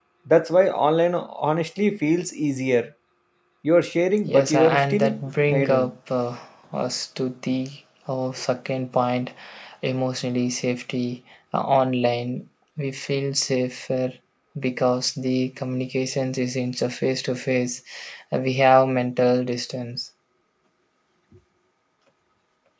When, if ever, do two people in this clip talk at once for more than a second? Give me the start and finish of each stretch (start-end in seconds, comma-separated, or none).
4.3-5.9